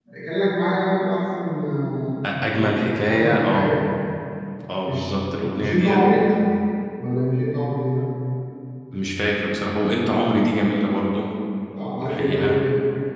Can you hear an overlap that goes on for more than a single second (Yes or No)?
Yes